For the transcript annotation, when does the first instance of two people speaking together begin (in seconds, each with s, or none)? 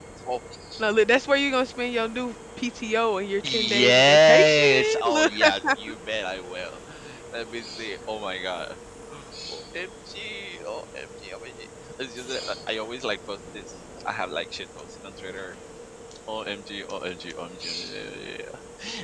3.4 s